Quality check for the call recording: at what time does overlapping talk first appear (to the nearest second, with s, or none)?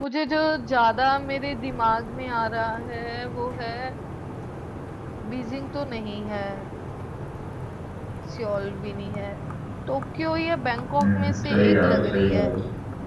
11 s